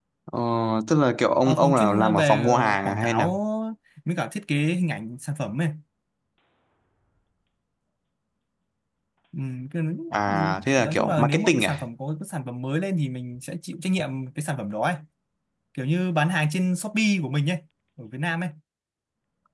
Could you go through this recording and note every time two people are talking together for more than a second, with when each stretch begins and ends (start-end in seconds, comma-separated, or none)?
1.4-3.3, 10.3-11.8